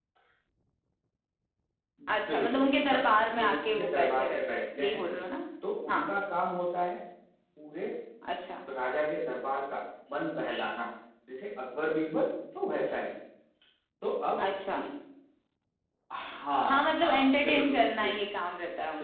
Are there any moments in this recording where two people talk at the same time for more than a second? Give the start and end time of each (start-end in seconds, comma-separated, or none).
2.1-5.0, 16.6-18.2